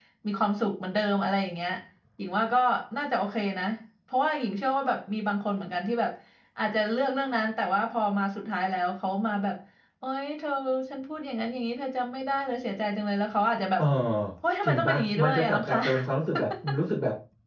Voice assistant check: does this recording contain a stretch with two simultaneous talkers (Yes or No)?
Yes